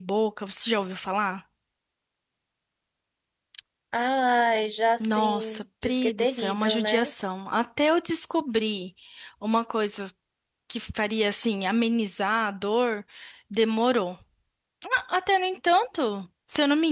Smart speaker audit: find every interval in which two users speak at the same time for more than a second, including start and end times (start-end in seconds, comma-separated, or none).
5.0-7.1